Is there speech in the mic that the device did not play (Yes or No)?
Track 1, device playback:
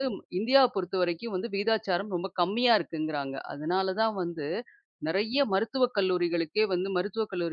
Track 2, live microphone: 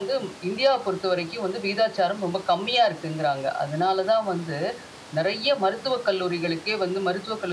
No